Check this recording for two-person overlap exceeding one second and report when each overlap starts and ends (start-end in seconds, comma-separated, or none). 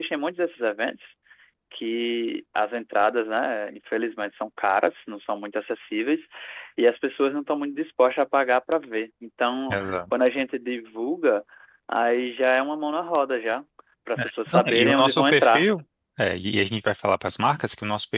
14.2-15.6